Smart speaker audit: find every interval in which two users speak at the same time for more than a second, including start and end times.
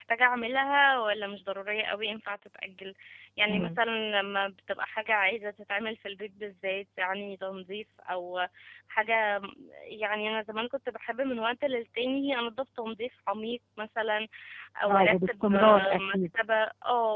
14.9-16.4

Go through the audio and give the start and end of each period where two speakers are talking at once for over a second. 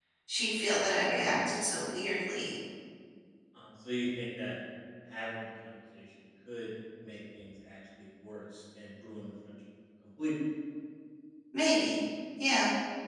none

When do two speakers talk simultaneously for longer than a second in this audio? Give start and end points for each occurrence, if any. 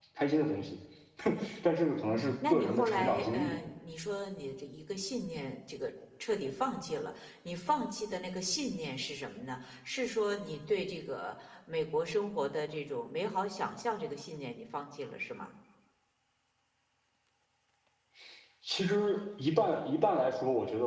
2.1-3.6

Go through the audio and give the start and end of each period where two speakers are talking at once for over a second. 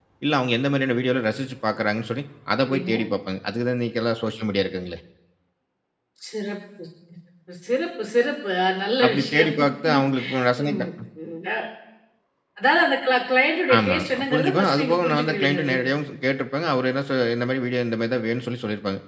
13.8-15.9

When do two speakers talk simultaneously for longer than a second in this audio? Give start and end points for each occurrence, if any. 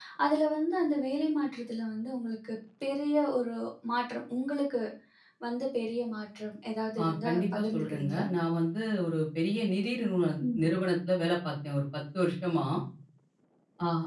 7.0-8.2

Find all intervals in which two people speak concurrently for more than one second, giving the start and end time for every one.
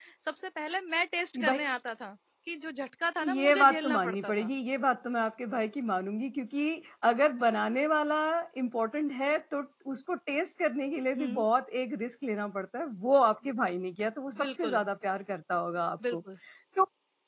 3.2-4.5

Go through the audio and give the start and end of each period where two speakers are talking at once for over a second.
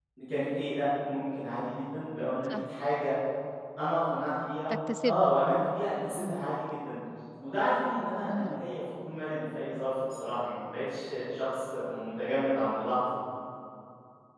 none

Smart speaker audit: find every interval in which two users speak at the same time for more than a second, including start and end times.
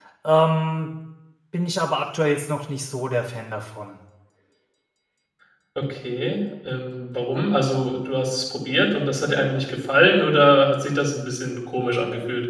none

